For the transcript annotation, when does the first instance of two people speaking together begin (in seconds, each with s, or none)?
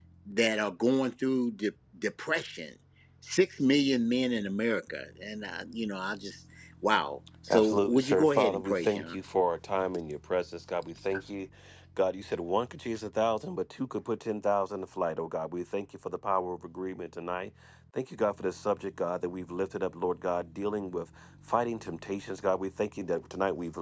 7.5 s